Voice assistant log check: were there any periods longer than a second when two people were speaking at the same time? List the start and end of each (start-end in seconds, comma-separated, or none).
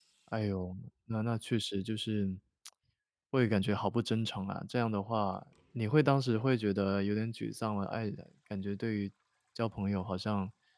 none